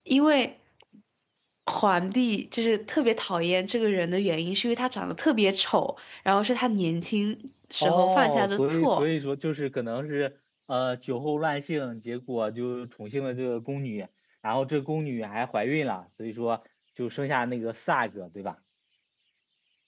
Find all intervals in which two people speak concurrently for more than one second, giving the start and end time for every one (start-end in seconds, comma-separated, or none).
7.8-9.0